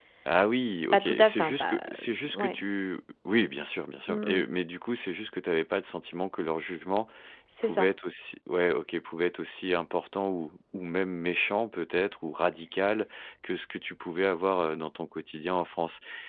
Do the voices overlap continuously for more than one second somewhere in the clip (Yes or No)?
Yes